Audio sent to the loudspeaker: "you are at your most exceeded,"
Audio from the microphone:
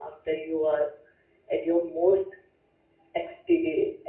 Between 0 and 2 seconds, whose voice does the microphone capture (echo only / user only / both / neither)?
echo only